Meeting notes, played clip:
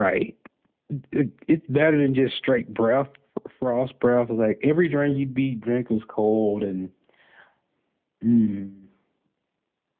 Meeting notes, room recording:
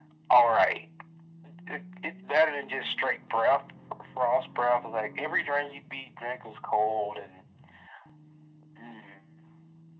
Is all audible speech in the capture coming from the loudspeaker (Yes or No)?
Yes